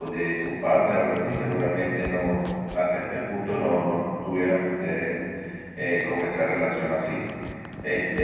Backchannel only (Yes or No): Yes